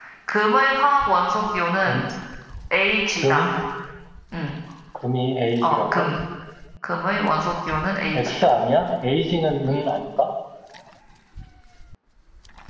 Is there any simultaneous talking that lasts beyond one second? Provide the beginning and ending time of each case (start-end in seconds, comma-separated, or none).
none